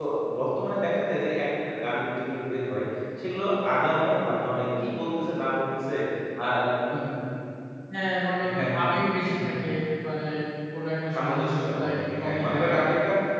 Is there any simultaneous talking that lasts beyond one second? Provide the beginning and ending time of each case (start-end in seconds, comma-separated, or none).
11.2-12.8